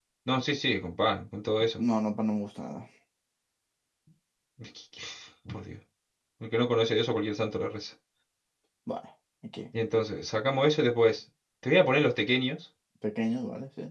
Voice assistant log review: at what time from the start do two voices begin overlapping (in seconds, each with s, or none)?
none